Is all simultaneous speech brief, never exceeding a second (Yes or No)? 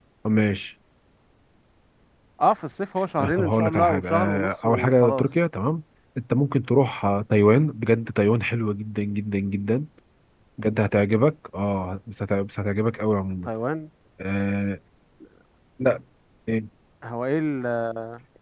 No